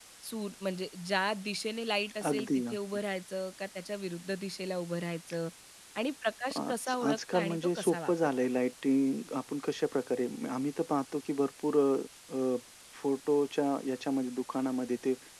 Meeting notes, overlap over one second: present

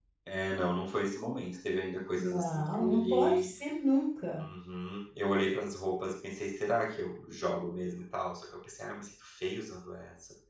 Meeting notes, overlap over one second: present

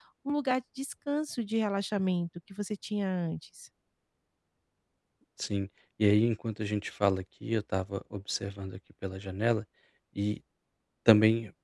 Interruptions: none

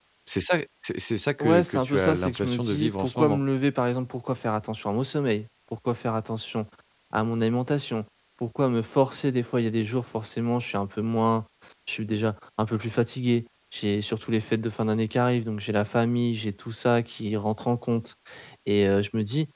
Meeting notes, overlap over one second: present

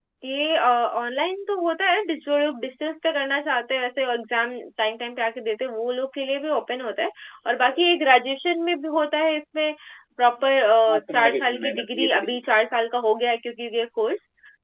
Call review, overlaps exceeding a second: present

